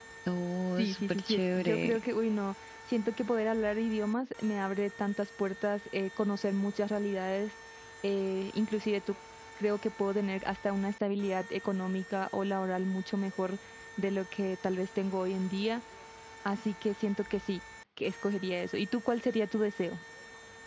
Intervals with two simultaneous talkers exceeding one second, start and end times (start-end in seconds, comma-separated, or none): 0.8-2.0